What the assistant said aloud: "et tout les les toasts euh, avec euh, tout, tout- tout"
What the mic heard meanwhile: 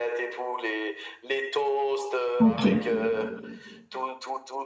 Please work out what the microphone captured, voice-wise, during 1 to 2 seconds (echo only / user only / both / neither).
echo only